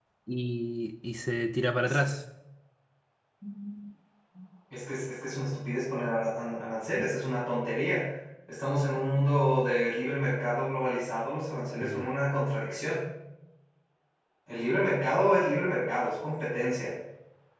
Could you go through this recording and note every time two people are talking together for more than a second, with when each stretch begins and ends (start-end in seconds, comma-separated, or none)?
none